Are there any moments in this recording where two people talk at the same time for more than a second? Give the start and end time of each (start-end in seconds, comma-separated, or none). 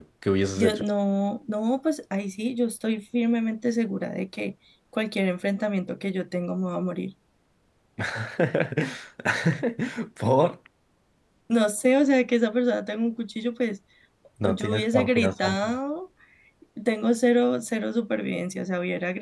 14.4-15.8